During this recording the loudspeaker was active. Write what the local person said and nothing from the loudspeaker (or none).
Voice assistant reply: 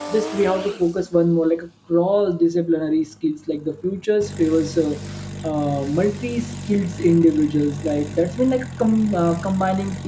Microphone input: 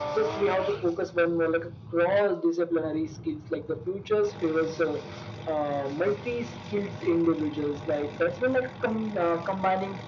none